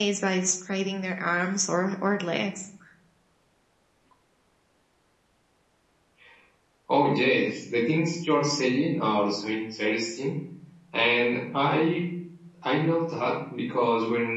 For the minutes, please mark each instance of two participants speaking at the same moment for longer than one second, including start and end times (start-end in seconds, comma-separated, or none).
none